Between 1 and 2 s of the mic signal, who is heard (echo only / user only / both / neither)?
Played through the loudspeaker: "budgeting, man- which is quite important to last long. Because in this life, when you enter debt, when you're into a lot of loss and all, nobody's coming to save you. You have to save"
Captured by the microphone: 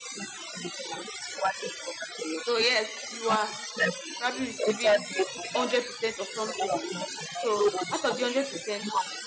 echo only